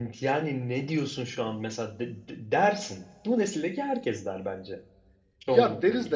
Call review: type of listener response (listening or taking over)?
taking over